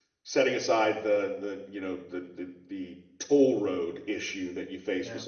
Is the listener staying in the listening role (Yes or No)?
Yes